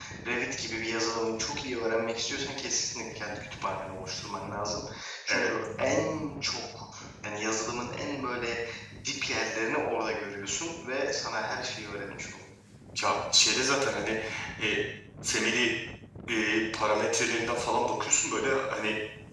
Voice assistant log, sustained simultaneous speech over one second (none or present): none